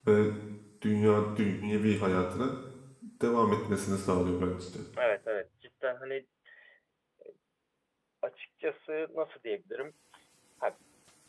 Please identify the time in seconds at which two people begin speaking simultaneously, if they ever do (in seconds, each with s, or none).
none